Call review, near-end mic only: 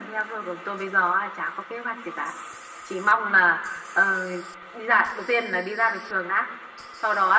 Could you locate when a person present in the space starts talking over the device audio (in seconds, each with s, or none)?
none